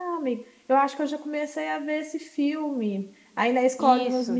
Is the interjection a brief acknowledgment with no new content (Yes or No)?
Yes